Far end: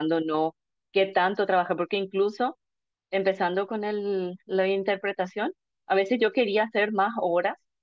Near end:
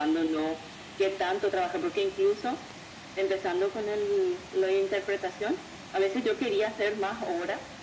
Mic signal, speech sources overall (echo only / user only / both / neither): echo only